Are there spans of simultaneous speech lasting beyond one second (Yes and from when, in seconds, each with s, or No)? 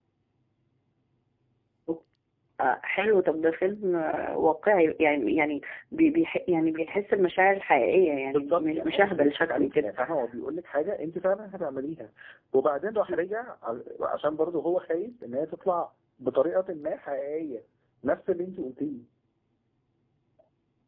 Yes, from 8.2 s